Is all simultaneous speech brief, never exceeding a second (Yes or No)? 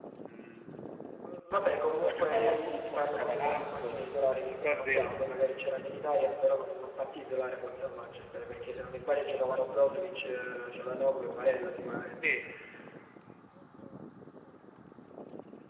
No